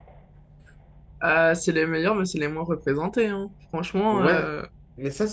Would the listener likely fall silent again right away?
No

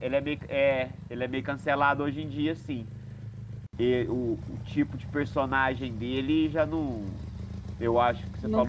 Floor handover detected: No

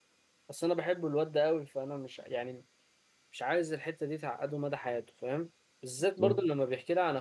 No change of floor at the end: Yes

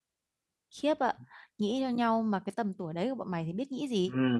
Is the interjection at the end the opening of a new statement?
Yes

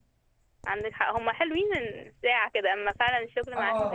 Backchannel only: No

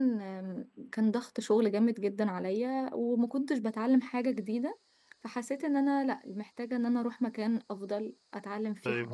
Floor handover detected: Yes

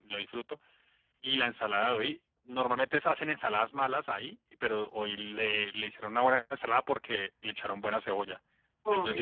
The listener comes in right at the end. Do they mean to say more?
No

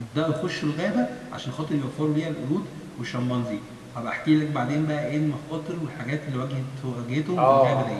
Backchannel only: No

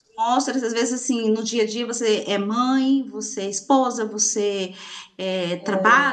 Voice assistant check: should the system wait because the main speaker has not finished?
Yes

